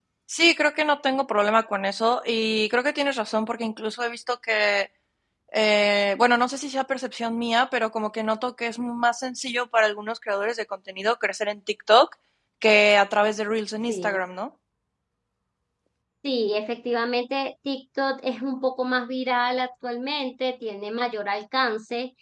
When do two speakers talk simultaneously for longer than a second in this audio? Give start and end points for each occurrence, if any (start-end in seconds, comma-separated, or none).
none